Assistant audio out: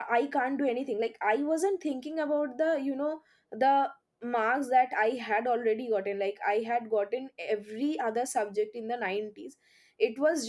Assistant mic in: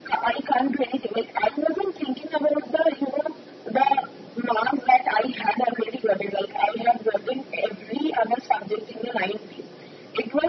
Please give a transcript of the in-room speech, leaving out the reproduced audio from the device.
none

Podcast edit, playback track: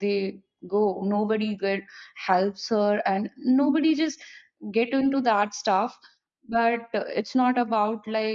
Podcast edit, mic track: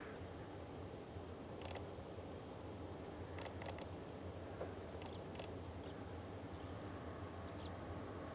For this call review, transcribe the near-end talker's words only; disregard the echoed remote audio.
none

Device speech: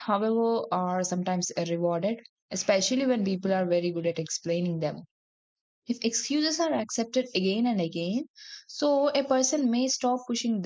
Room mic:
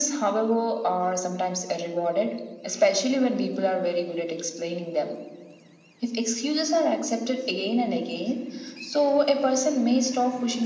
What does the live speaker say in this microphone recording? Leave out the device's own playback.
none

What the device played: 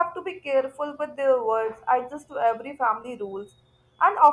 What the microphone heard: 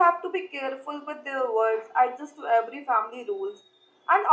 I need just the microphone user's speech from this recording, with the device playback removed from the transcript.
none

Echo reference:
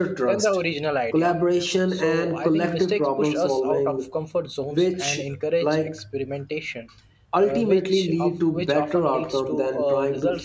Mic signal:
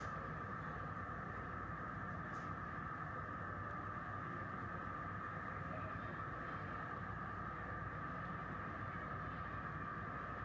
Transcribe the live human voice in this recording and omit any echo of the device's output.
none

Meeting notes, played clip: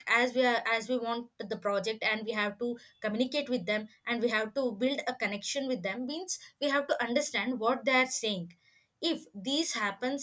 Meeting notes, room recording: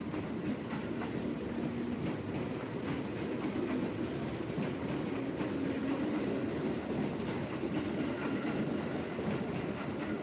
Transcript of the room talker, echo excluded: none

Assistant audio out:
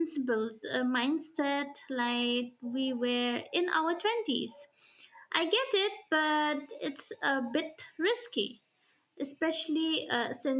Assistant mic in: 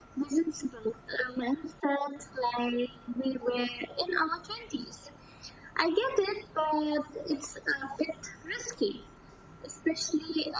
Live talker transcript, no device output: none

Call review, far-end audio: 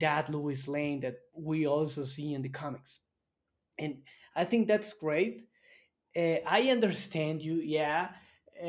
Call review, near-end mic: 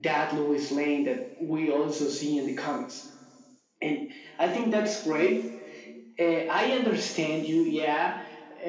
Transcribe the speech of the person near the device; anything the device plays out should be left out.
none

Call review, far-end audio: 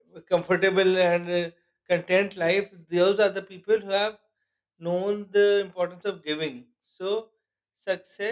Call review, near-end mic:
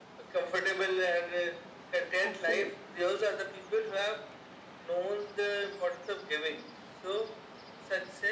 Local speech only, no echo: absolutely

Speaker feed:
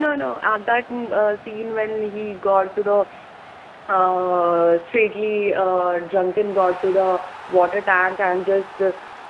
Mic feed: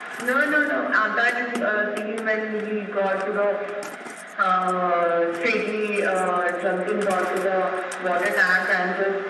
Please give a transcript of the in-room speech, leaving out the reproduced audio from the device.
none

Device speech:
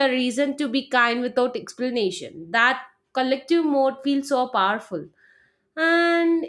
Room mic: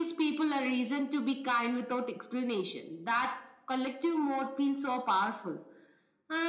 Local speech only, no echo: none

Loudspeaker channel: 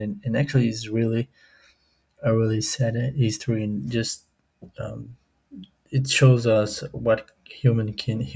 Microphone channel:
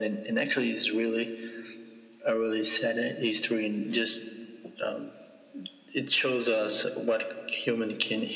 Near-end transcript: none

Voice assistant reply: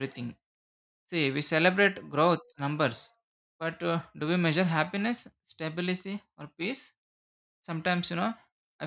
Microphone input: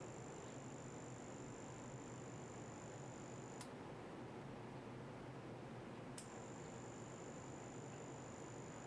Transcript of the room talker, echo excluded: none

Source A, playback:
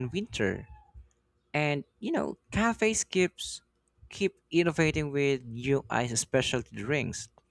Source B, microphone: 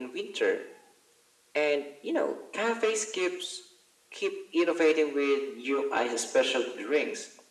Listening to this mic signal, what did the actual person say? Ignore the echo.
none

